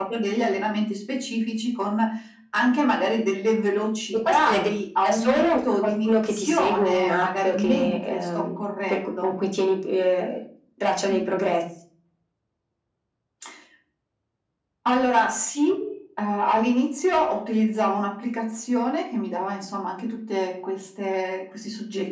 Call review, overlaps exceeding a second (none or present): present